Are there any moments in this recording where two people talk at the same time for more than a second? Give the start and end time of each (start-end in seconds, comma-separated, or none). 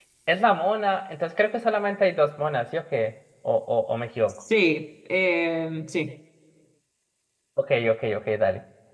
none